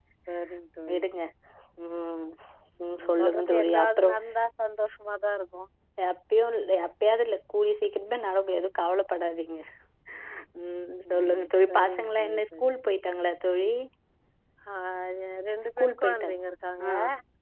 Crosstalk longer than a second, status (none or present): present